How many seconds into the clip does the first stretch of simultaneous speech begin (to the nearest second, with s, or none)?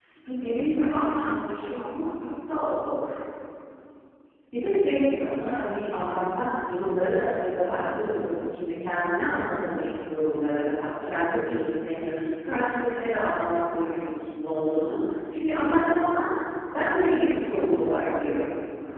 none